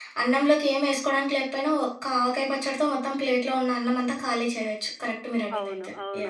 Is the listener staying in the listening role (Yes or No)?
No